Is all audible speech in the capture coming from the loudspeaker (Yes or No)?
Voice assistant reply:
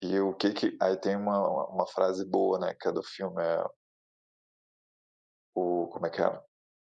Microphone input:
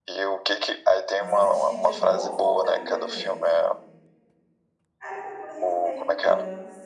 No